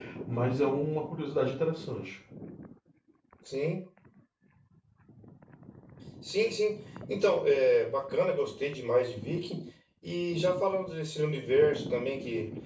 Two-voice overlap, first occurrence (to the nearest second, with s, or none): none